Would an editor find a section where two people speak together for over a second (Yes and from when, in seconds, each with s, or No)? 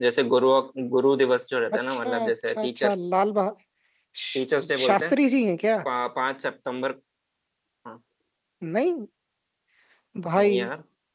Yes, from 1.7 s